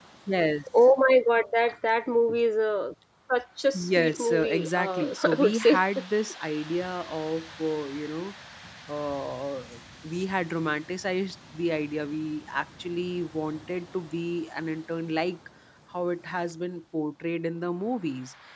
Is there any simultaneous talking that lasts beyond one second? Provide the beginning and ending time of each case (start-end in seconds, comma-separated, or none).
3.7-5.8